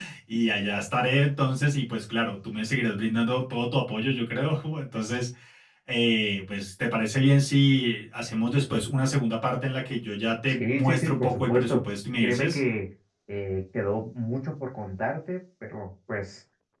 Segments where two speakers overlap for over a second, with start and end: 10.5-11.8

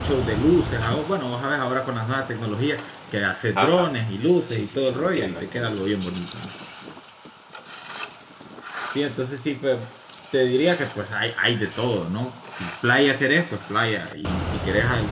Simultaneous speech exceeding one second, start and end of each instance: 4.5-6.1

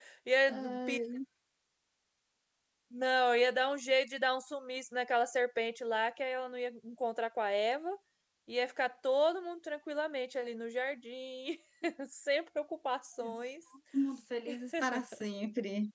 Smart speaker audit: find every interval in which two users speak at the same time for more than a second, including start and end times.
none

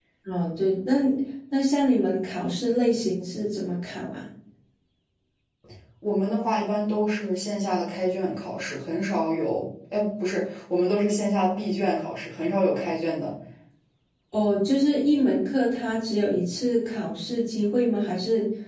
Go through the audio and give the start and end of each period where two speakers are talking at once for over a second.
none

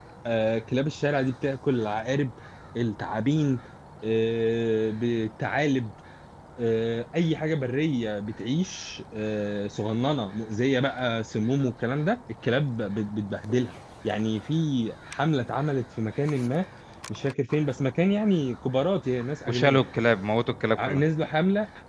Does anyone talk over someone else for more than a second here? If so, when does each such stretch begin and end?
none

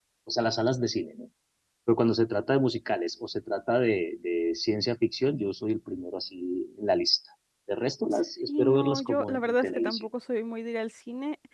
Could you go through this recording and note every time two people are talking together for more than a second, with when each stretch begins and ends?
8.5-10.0

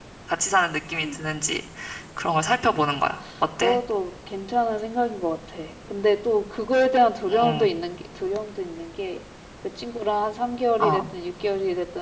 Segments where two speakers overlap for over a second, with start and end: none

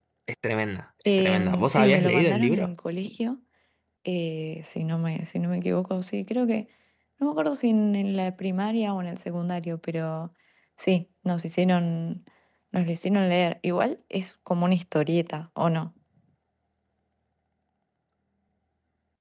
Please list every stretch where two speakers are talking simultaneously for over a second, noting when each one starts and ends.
1.2-2.7

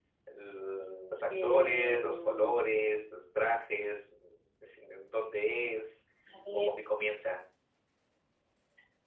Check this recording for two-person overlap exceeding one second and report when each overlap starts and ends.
1.4-2.7

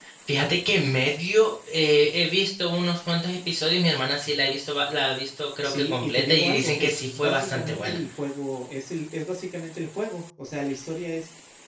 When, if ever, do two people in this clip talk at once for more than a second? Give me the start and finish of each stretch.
5.6-8.0

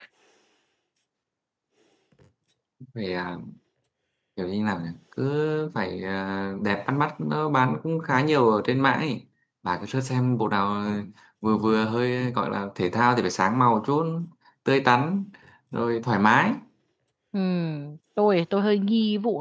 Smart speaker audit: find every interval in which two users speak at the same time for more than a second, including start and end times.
none

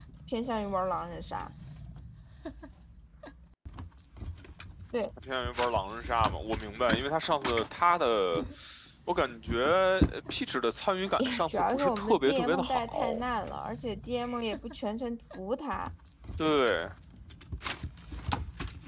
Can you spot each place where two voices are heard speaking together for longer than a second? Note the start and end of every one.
11.2-13.2

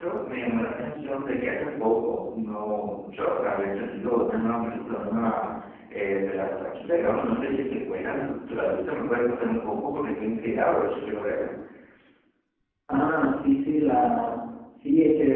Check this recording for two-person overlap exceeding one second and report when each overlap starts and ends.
none

